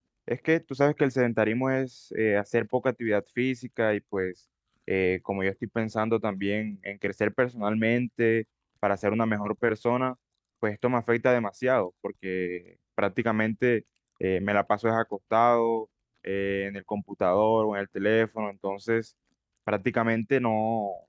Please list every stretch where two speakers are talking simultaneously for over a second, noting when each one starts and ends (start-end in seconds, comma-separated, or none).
none